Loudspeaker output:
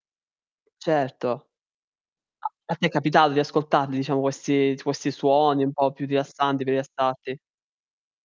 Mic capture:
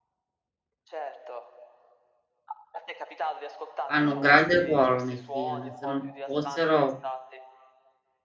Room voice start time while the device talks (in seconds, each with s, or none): 3.8 s